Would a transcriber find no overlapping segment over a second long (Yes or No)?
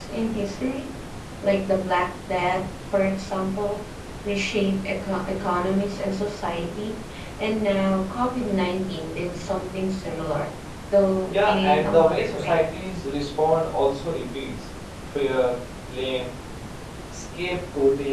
No